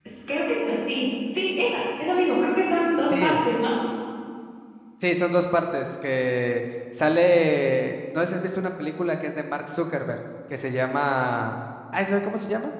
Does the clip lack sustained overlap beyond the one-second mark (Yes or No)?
Yes